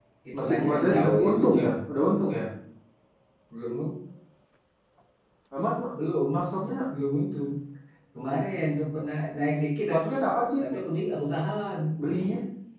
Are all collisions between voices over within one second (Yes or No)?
No